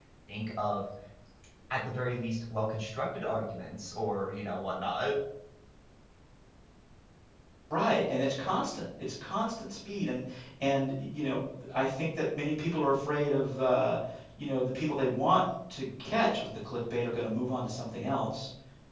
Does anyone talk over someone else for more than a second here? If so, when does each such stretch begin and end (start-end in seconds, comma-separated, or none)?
none